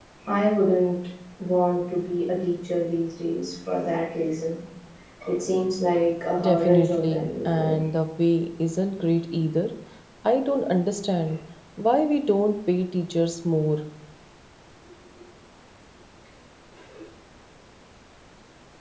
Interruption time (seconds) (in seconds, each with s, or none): 6.4 s